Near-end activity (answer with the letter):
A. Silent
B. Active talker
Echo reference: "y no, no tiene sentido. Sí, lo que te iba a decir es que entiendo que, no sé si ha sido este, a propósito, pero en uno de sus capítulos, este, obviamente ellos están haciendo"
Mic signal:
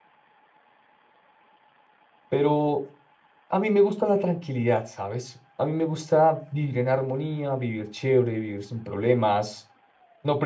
B